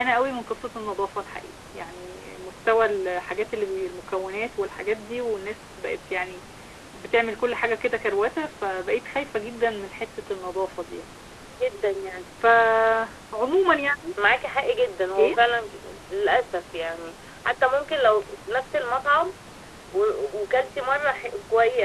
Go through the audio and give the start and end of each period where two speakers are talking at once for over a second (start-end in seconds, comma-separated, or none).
none